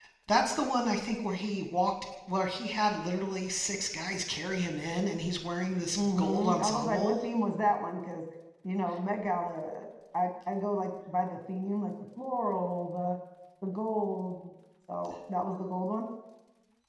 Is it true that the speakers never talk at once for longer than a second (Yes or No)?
No